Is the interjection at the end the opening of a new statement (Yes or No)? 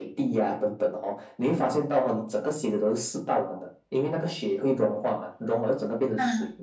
No